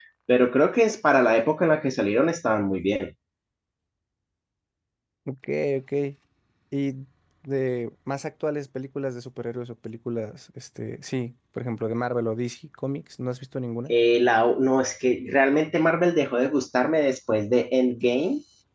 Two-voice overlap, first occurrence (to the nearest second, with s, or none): none